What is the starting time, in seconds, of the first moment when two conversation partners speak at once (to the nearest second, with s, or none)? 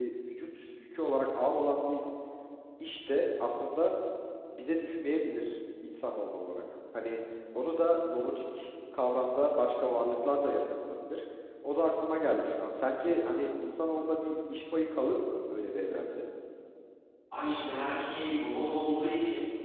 none